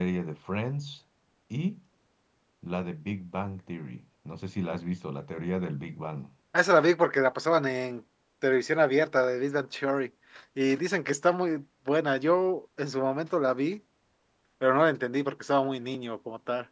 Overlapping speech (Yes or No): No